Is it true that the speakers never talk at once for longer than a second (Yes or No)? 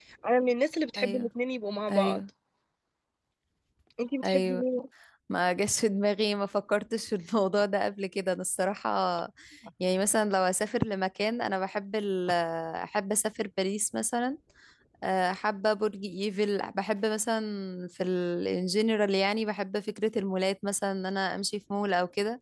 Yes